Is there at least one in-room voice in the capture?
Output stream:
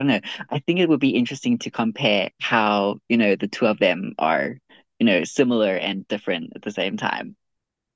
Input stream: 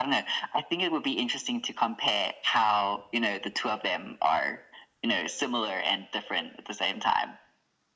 No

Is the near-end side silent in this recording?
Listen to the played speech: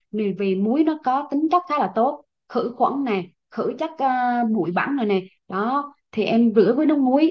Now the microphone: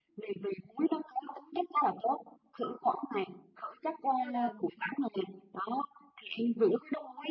No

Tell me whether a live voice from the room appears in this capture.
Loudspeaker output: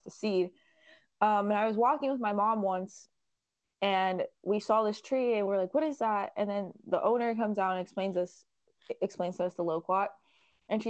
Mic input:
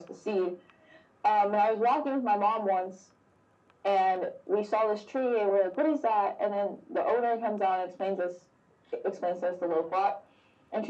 No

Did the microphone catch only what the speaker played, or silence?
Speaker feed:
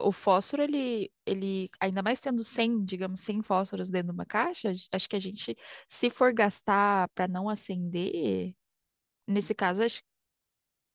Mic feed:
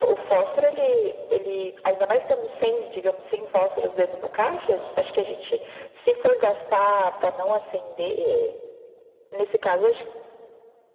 Yes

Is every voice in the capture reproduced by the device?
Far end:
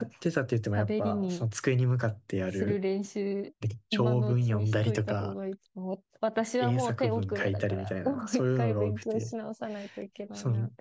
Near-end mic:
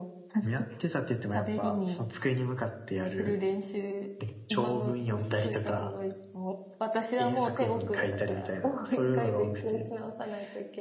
Yes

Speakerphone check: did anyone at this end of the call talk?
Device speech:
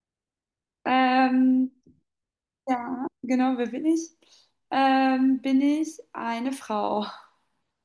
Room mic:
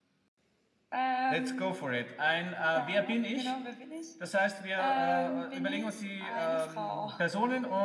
Yes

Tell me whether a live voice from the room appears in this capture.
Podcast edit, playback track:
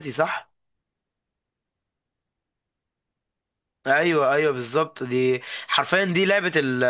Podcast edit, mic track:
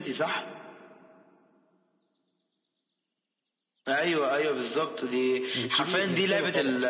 Yes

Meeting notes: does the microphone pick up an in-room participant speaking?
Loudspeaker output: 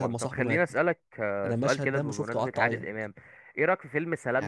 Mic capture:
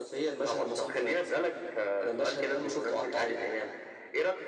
No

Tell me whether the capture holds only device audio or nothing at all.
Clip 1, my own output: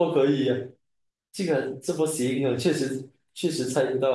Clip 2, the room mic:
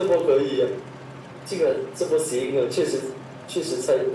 Yes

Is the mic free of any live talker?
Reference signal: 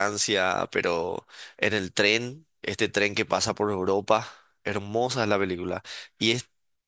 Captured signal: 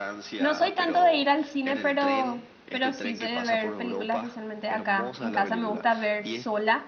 No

